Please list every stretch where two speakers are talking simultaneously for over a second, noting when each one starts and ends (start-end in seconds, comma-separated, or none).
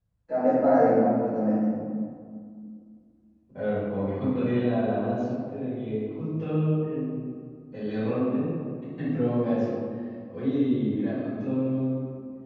none